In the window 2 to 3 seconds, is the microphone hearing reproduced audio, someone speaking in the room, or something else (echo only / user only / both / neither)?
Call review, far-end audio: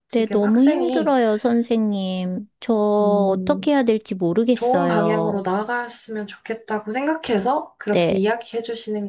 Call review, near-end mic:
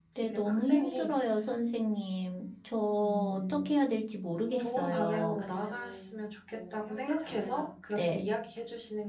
echo only